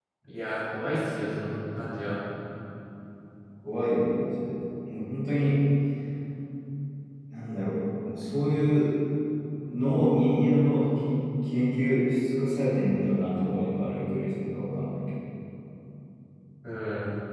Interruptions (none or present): none